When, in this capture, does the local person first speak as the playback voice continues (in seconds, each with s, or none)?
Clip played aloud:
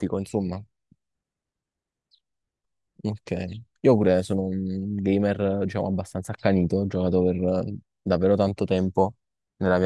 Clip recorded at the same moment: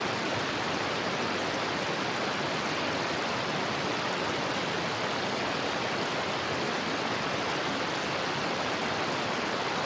none